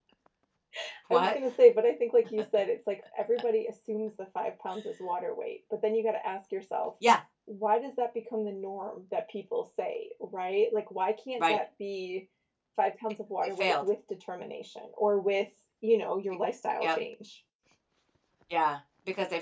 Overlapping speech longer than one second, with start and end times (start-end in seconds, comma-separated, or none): none